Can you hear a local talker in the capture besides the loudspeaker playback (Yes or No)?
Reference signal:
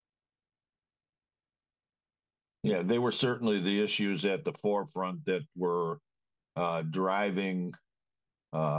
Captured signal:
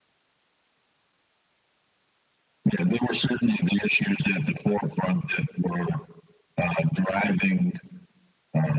No